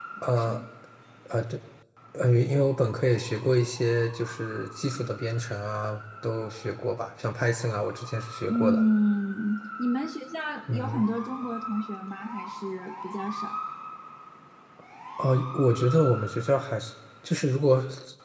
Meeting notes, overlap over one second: none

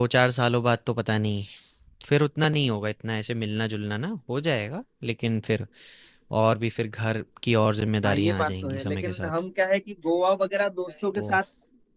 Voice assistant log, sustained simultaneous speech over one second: present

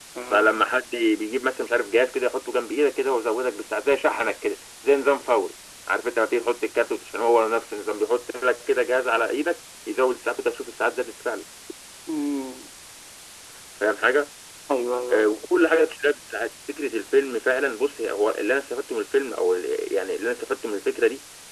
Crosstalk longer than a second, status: none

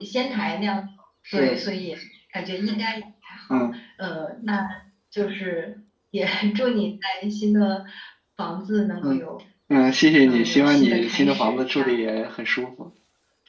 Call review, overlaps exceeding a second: present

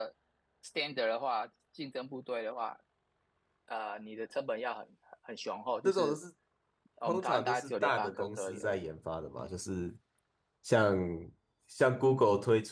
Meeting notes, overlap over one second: present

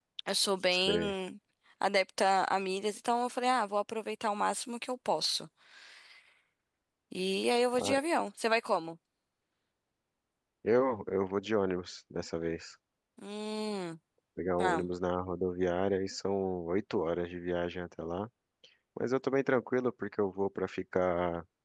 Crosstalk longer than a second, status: none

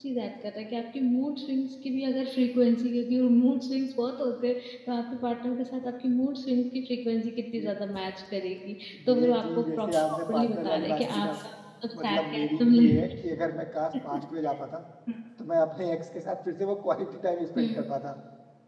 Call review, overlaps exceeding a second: present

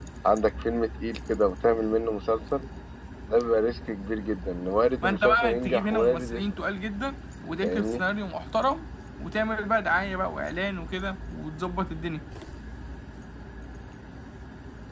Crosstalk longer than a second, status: present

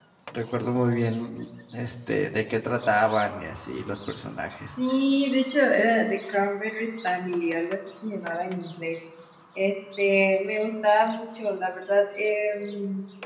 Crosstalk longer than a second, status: none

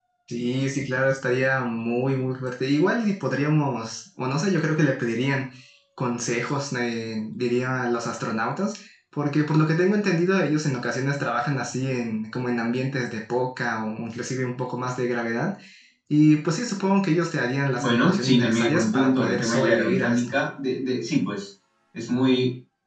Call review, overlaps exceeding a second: present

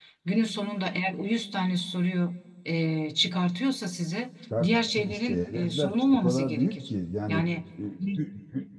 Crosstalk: present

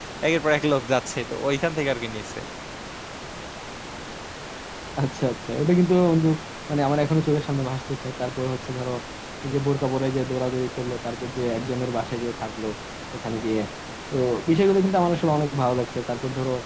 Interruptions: none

